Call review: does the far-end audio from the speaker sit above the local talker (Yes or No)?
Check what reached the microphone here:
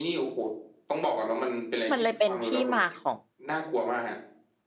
No